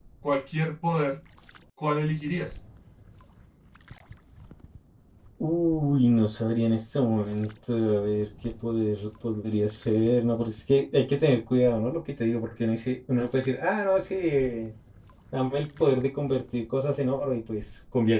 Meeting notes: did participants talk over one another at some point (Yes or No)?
No